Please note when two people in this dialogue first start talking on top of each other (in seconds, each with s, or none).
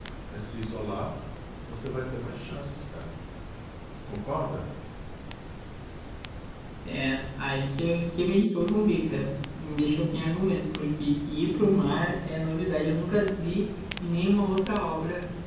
none